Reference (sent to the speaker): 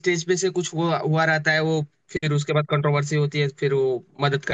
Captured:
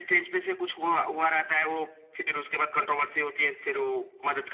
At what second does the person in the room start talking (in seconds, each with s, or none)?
none